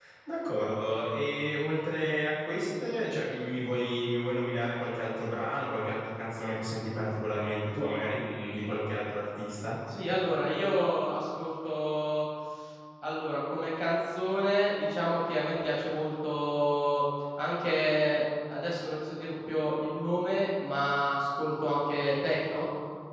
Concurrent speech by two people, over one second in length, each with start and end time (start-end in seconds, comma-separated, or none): none